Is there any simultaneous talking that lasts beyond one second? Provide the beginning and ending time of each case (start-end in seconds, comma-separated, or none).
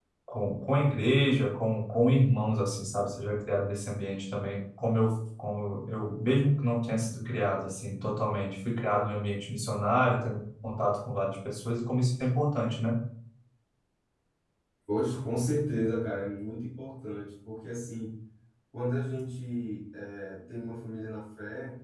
none